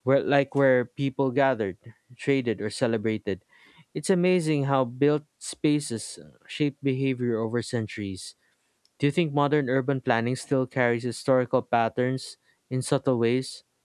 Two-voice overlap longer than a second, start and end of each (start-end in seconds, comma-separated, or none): none